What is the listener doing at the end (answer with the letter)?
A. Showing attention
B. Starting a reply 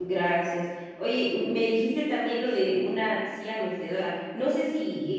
A